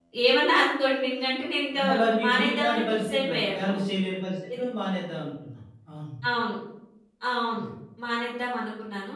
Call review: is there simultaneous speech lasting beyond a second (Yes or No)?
Yes